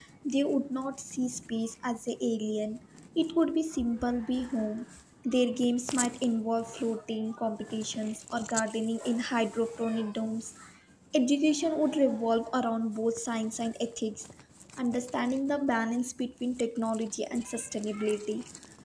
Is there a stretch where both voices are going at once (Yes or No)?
No